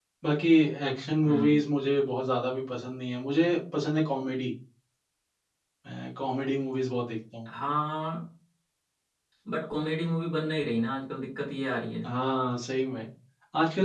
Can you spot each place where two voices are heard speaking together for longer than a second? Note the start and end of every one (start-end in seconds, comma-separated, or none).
none